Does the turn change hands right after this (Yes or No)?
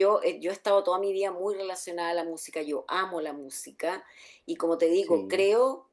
No